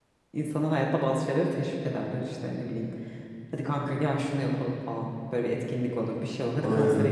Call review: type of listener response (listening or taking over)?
listening